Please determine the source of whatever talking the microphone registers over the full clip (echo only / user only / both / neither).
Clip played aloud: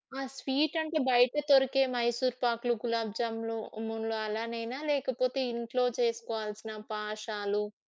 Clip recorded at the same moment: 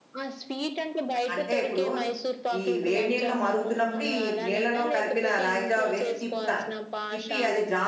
both